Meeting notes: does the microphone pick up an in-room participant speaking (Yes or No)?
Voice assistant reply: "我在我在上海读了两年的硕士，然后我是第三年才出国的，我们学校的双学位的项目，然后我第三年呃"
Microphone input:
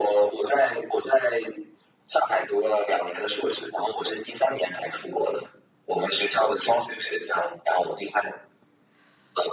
No